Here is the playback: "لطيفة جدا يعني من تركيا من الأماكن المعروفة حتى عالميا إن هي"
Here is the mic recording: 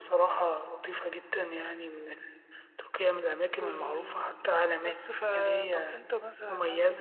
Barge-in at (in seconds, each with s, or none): 3.6 s